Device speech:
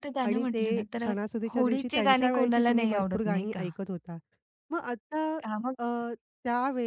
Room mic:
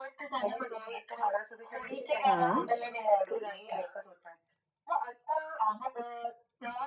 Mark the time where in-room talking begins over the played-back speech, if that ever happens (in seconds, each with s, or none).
2.2 s